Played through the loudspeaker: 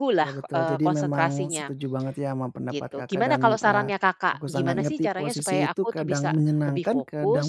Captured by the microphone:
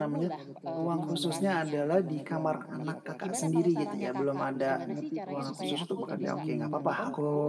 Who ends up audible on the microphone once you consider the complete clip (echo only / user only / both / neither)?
both